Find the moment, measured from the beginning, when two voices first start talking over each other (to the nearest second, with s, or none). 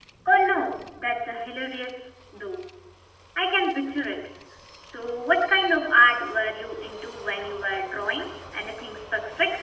none